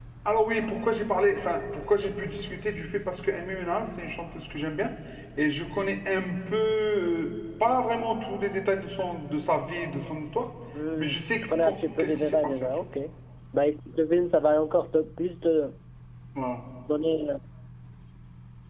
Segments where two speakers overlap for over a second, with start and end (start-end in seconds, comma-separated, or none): 11.0-12.7